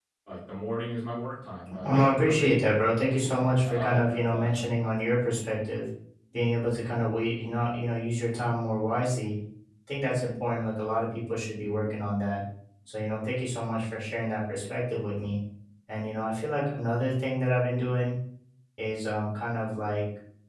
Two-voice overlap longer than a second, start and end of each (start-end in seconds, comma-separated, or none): 1.8-4.5